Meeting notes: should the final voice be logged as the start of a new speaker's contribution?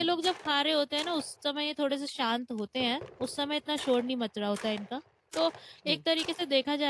No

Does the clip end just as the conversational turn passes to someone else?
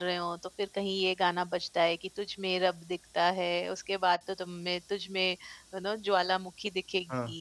Yes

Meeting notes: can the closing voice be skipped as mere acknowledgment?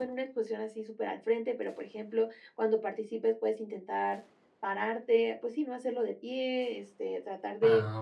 Yes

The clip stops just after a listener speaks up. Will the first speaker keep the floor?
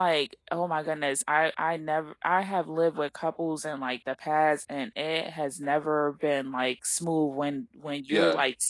Yes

